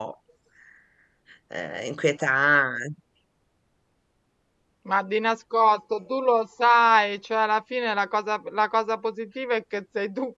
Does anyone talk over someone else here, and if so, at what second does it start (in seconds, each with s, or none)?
none